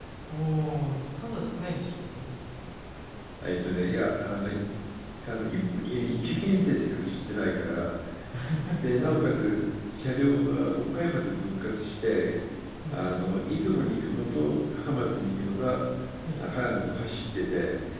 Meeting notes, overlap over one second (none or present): none